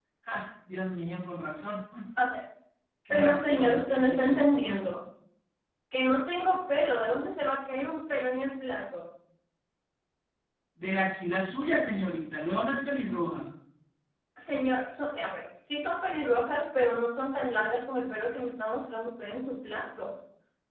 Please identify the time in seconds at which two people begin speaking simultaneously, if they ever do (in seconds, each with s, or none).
3.1 s